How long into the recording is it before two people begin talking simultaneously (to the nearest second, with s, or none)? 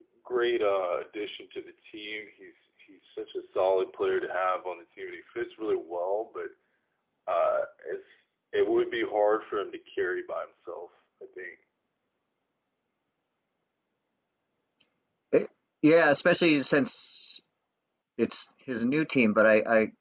none